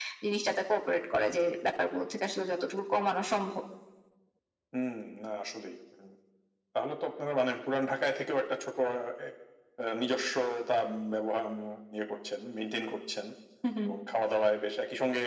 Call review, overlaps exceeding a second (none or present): none